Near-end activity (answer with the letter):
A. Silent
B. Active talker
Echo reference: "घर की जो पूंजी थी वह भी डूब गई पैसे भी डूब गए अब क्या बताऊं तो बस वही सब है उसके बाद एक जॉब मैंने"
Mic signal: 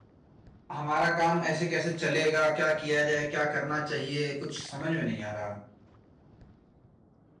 B